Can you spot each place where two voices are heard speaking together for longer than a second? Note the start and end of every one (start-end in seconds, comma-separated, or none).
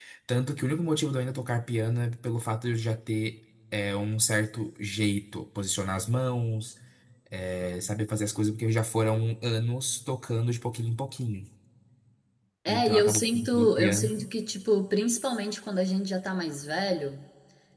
12.7-14.1